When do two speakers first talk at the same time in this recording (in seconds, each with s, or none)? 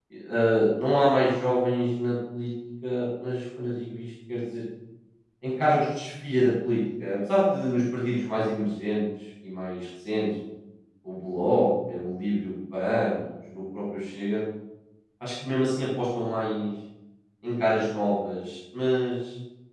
none